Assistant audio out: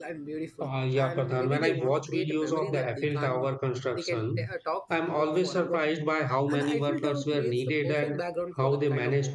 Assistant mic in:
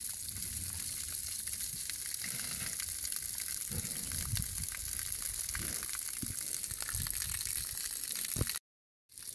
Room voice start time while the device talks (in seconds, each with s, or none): none